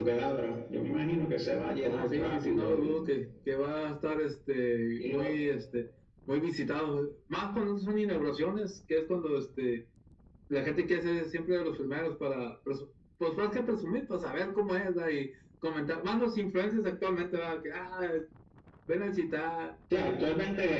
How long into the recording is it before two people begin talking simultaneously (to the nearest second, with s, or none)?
2 s